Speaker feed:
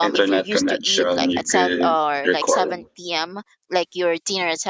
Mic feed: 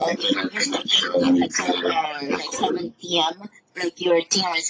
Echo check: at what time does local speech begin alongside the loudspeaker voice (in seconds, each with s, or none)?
none